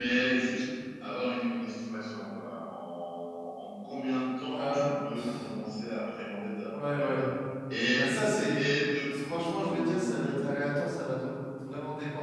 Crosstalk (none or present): present